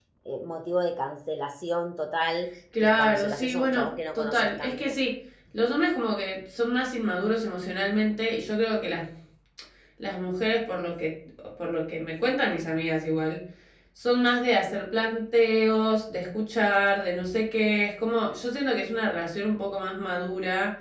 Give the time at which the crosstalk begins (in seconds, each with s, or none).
2.7 s